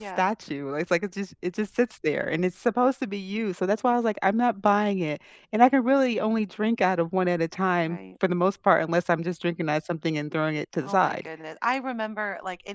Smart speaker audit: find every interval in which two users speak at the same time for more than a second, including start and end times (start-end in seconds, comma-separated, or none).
none